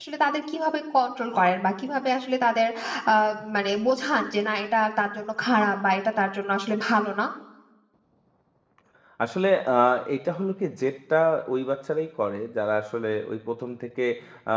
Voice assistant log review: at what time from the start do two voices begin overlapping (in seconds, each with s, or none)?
none